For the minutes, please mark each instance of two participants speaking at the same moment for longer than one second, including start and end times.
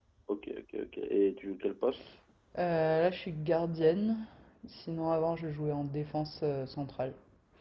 none

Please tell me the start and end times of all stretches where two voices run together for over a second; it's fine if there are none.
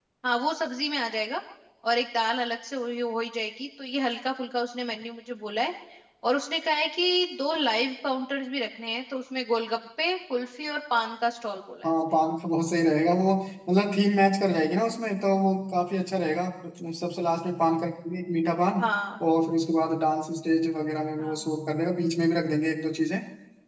none

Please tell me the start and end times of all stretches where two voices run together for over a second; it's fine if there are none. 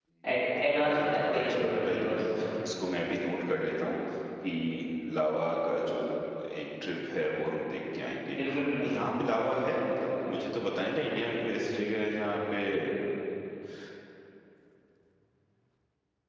0.6-2.2

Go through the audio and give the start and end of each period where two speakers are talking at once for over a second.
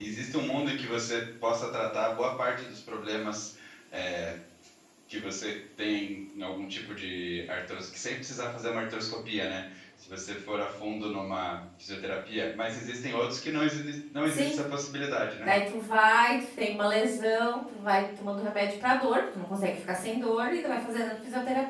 none

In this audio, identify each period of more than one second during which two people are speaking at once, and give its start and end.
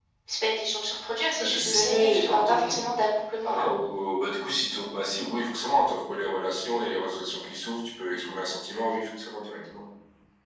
1.4-2.8

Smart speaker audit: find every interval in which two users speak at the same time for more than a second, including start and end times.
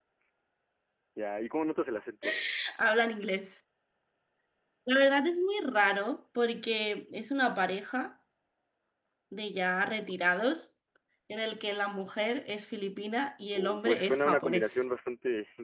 13.5-14.8

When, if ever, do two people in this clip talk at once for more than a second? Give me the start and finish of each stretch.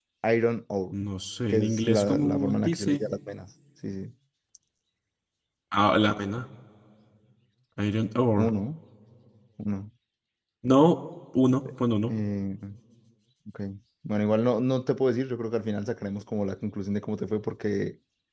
1.5-3.0

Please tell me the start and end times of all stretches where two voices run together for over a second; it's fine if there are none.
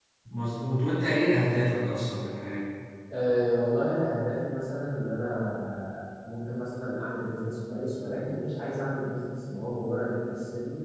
none

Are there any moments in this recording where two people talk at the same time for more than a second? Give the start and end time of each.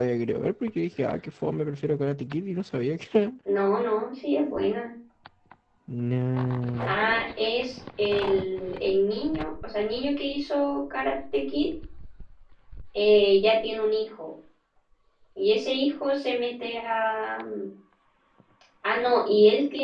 none

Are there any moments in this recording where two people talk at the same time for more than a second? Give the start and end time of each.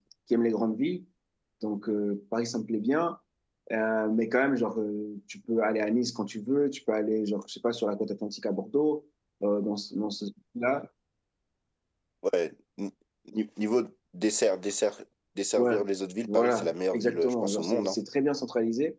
16.3-18.0

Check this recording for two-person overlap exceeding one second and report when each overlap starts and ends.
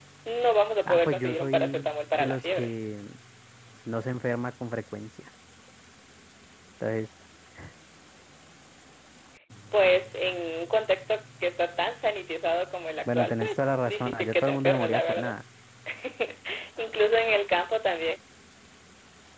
0.8-2.7, 13.1-15.3

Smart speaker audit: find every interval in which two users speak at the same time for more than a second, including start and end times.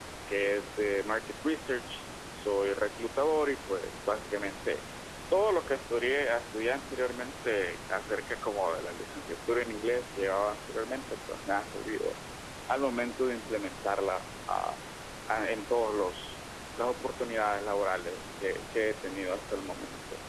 none

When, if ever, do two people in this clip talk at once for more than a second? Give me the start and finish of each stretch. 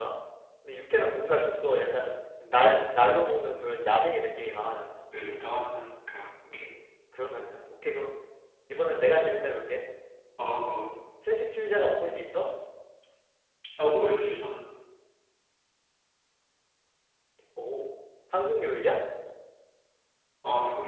none

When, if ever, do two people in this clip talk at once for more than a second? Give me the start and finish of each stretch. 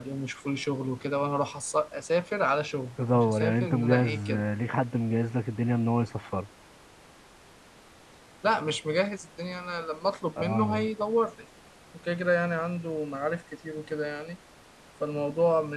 3.1-4.4

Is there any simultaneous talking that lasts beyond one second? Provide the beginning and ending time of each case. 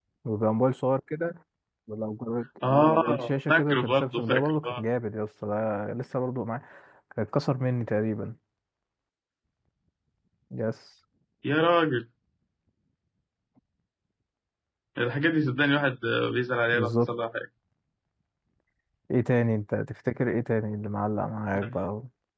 2.6-4.8

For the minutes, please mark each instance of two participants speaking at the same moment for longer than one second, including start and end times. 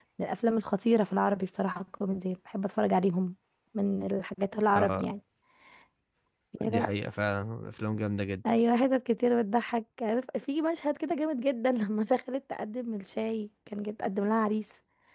none

